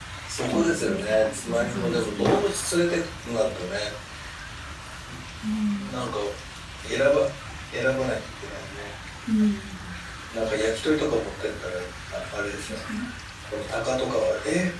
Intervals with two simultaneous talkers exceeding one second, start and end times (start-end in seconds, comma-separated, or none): 0.5-2.4